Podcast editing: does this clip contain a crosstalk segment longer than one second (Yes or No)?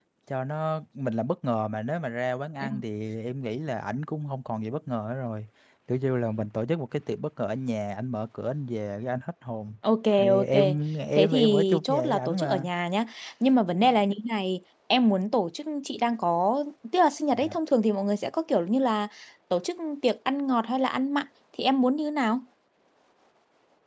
Yes